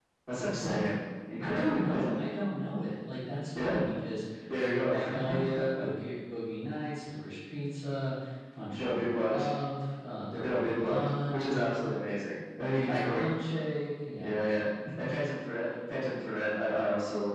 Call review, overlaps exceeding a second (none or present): present